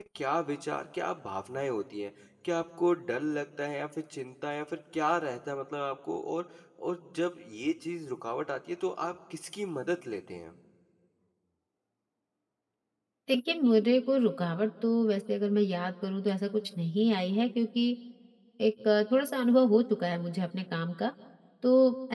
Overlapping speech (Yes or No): No